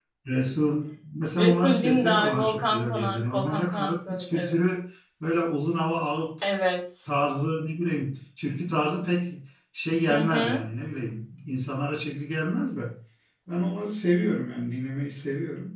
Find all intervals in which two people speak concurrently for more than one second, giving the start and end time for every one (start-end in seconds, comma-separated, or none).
1.4-4.5